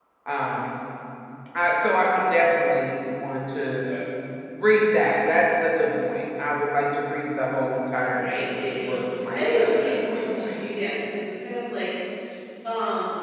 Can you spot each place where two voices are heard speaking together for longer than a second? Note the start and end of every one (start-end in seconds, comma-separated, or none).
8.1-10.6